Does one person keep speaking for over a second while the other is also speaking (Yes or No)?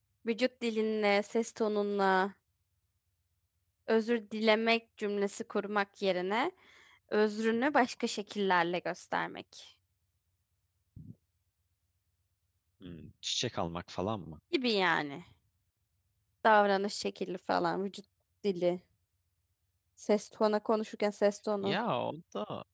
No